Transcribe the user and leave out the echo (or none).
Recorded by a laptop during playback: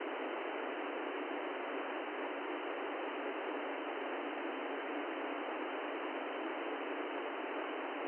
none